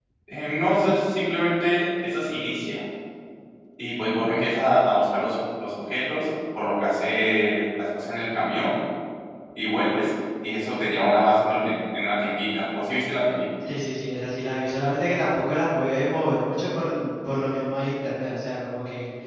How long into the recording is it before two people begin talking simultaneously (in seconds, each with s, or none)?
none